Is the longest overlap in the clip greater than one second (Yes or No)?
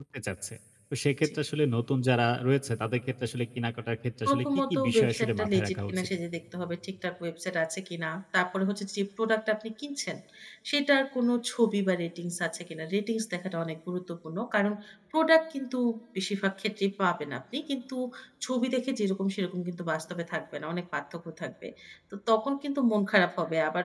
Yes